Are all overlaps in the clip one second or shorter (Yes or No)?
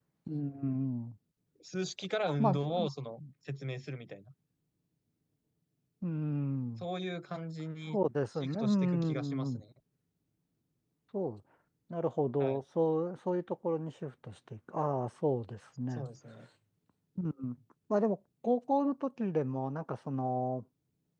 No